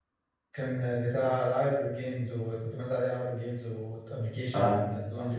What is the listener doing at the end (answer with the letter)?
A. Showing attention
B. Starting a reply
A